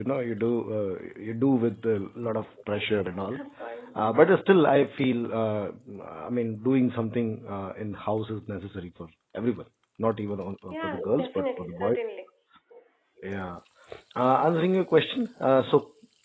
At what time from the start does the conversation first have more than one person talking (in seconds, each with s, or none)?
10.7 s